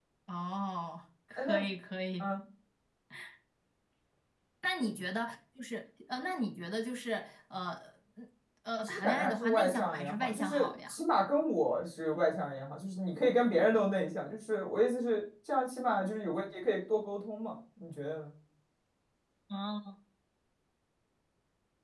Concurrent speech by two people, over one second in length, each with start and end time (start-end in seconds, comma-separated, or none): 8.8-11.0